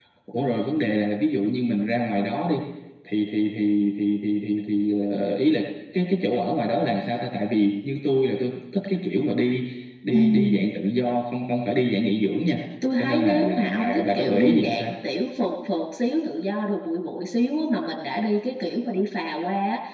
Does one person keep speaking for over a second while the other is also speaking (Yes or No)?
Yes